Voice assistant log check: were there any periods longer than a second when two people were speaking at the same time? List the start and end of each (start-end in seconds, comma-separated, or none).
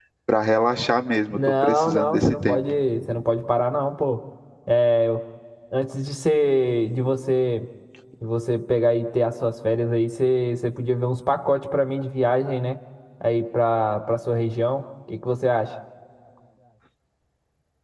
1.3-2.6